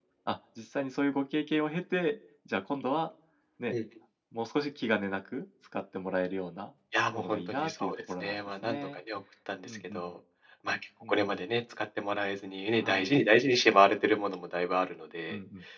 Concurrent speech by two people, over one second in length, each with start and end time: 7.1-8.9

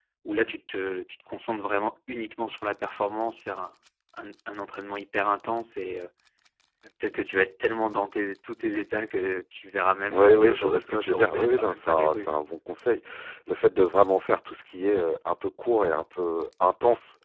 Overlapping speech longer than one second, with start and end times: 10.1-12.3

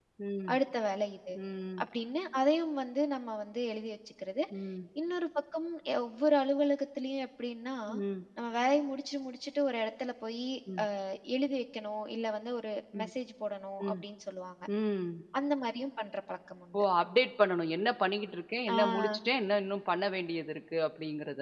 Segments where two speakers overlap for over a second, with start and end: none

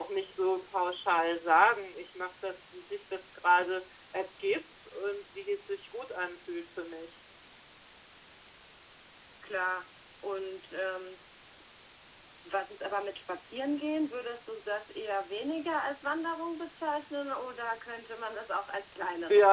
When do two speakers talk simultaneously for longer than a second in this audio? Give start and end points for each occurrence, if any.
none

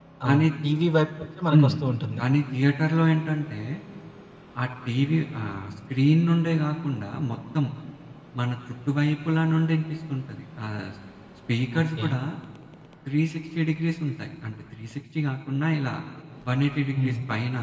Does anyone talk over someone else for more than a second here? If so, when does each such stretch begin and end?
none

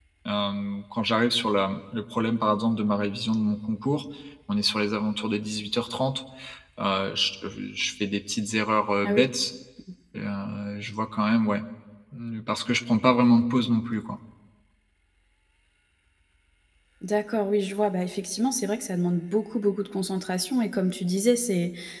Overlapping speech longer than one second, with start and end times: none

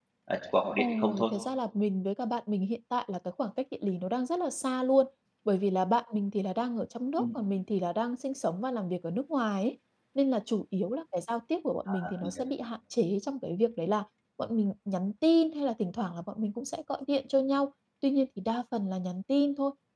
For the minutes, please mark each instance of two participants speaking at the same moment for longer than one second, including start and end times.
none

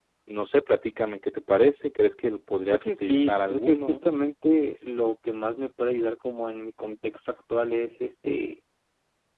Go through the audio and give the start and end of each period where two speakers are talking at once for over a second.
2.7-4.0

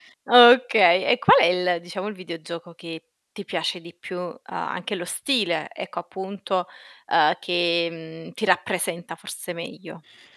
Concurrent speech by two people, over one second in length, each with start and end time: none

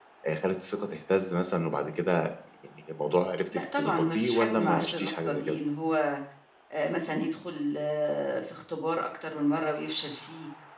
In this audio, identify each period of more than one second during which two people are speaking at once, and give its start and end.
3.8-5.6

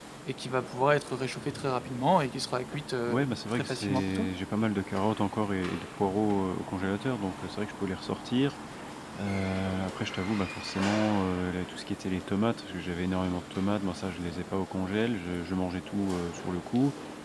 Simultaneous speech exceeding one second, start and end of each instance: 3.1-4.3

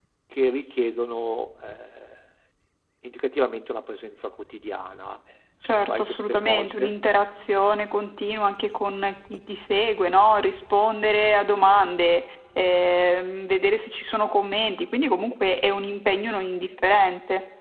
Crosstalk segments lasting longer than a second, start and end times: 5.6-6.9

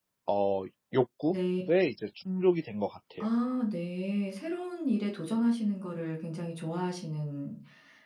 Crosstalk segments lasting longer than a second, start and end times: none

